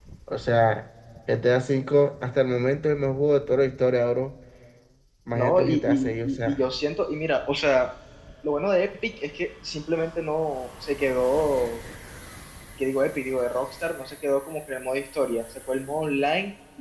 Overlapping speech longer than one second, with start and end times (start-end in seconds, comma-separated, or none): 5.3-6.6